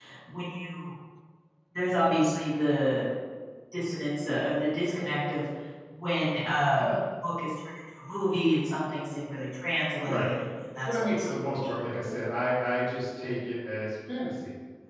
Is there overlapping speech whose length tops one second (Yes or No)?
Yes